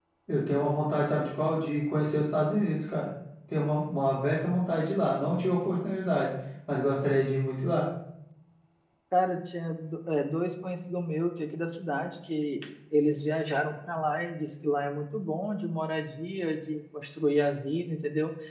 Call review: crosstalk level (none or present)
none